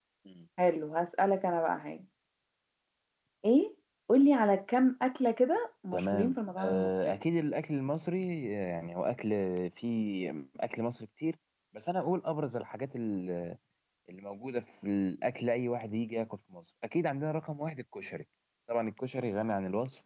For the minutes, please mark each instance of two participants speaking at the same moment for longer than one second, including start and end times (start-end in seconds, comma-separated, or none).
5.9-7.1